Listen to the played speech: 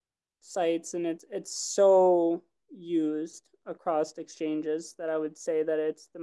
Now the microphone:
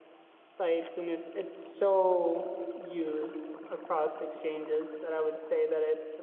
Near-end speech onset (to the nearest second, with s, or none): none